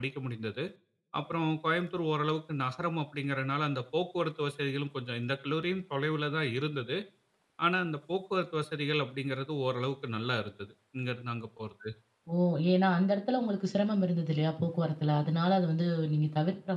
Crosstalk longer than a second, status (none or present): none